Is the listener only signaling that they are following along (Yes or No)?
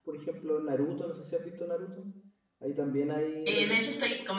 No